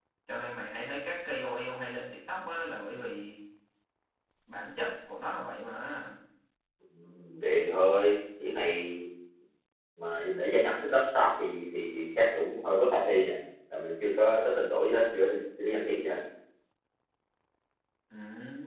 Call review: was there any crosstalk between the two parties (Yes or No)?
No